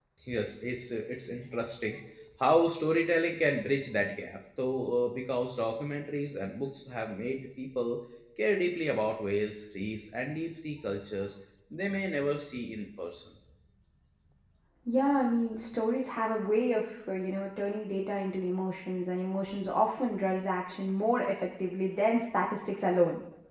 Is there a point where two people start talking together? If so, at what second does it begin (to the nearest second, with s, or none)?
none